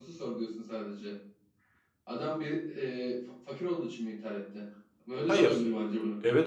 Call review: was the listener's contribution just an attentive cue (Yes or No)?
No